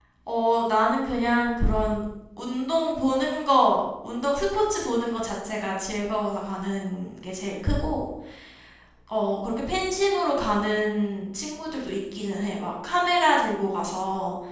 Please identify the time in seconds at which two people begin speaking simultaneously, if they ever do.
none

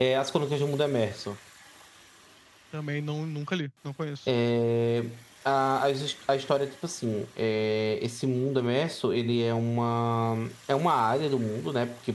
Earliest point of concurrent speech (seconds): none

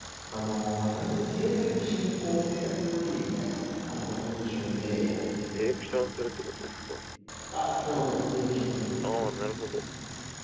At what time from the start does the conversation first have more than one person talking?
none

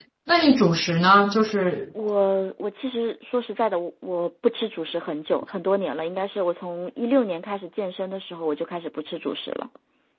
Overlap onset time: none

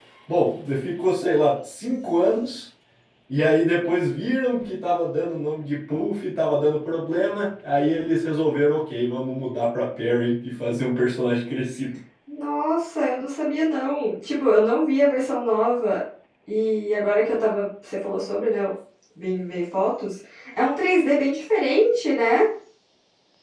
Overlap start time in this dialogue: none

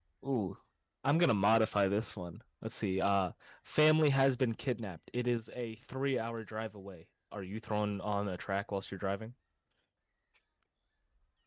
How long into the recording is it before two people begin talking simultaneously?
none

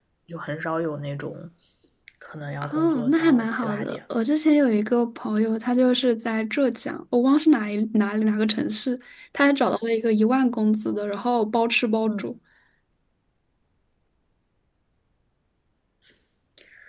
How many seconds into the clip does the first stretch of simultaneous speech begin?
3 s

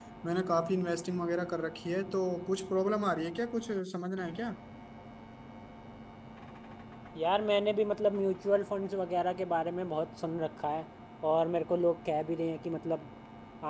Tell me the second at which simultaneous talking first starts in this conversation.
none

